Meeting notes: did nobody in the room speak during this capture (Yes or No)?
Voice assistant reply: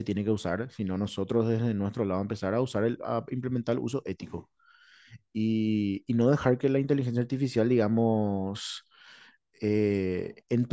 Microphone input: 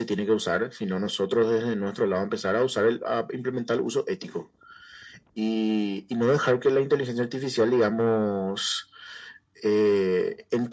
Yes